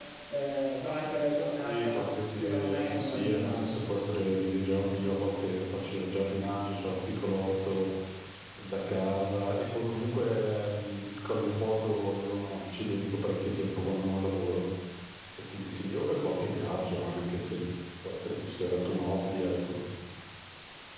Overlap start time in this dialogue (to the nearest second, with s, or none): 2 s